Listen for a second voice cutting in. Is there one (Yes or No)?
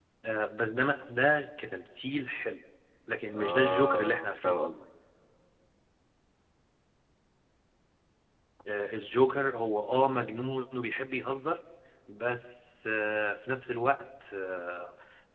Yes